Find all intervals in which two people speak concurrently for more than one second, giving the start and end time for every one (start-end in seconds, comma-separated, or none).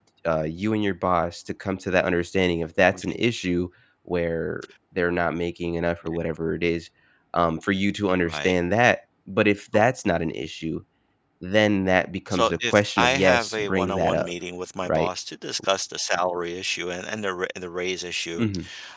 12.3-14.3